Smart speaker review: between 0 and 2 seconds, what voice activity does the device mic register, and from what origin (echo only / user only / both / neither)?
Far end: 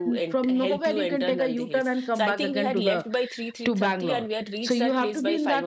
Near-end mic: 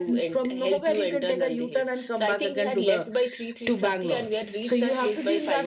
echo only